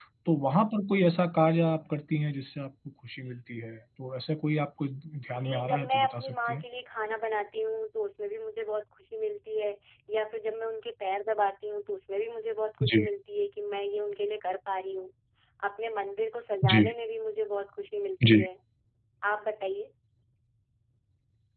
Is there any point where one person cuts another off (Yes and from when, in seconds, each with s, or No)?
Yes, from 5.4 s